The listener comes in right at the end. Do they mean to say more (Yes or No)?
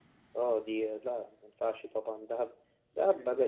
No